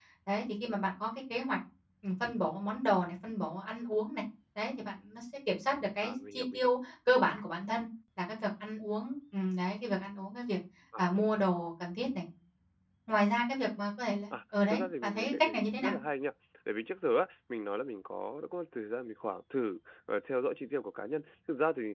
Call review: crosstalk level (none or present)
present